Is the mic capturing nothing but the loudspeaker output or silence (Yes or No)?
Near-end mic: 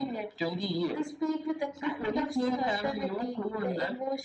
Yes